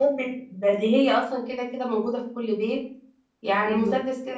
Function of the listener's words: listening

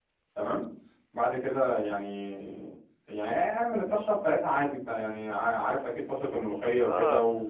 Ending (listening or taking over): taking over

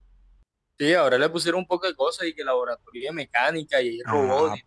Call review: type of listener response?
taking over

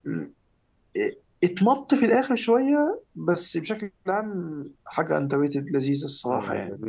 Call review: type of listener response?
taking over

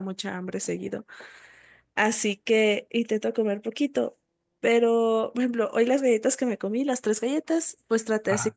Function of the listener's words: listening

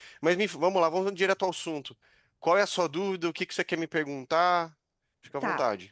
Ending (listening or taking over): taking over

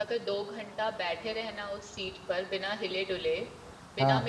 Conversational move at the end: listening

